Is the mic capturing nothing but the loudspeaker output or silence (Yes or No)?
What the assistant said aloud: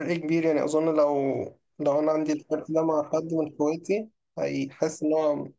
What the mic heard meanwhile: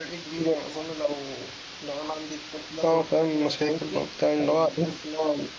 No